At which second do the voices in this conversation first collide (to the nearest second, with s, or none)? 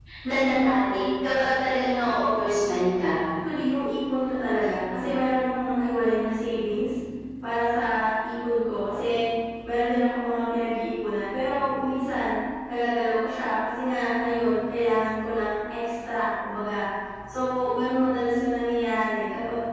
none